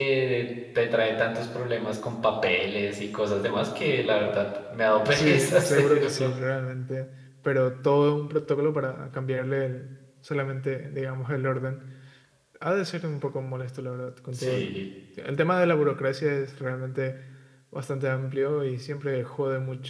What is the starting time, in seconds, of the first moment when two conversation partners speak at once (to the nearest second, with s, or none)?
5 s